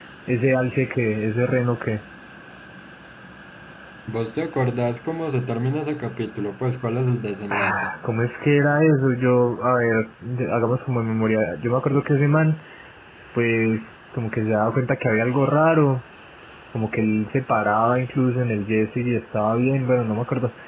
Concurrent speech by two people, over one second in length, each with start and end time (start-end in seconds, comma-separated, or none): none